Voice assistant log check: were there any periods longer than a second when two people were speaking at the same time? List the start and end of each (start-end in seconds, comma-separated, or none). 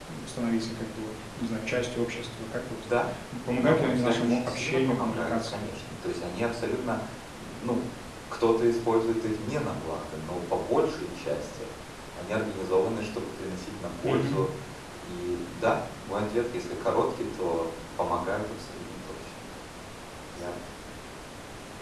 3.5-5.7